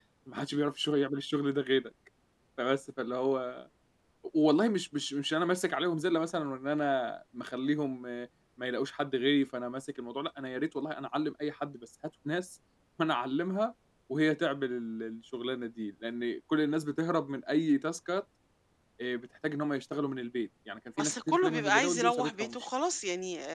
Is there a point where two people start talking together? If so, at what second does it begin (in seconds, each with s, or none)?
21.0 s